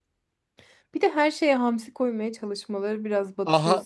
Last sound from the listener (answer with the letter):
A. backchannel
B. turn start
B